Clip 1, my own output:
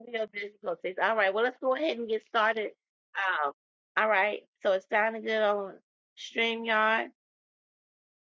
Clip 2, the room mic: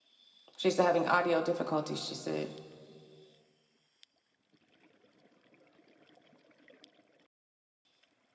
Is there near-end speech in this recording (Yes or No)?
Yes